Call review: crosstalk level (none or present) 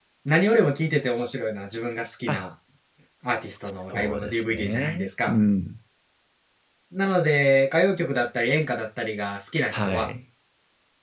present